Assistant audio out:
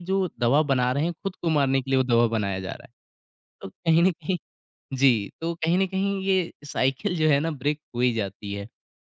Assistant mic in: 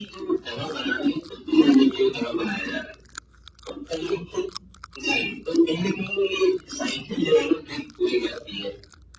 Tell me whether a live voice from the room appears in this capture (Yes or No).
No